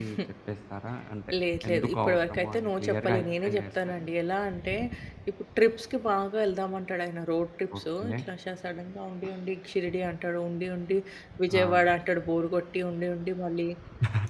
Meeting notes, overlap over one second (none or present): present